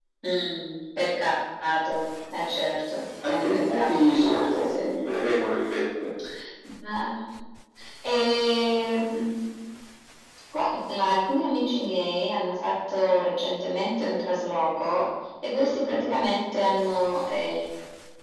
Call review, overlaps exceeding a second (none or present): present